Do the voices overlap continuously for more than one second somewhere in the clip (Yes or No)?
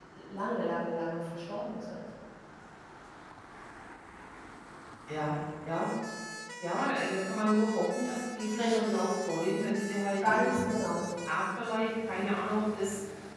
No